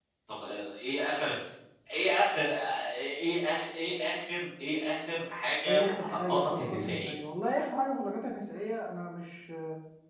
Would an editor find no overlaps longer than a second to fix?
No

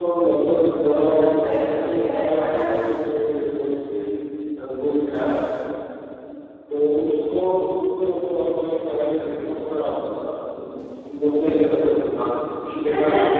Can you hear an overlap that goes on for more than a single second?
Yes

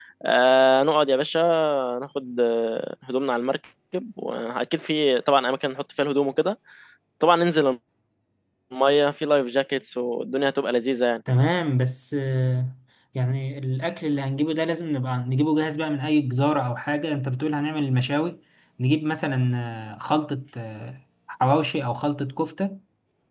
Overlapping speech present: No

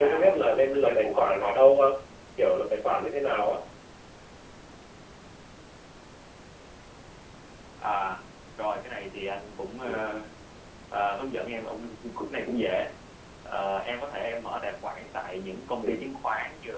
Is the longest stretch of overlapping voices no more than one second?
No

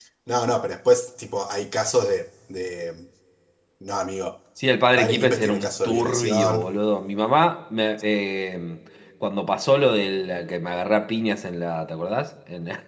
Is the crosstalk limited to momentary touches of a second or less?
No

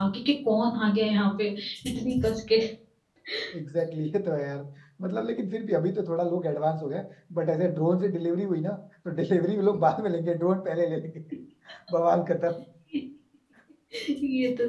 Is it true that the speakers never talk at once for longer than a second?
Yes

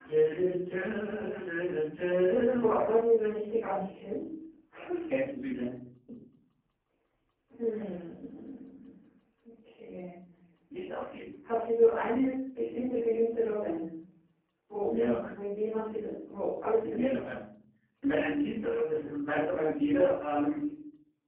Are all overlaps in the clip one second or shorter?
Yes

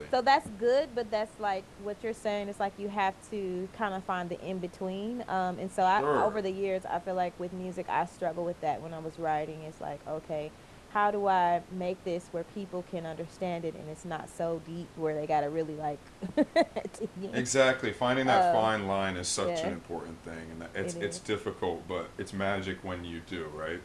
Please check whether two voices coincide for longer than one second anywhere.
No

